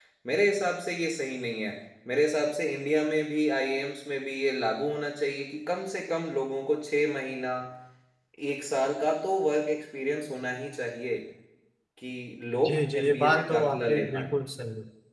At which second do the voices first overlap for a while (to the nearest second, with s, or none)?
13 s